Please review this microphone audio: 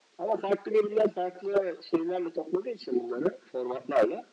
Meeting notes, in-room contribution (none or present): none